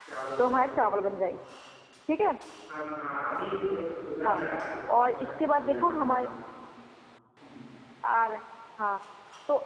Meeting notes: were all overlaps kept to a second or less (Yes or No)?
No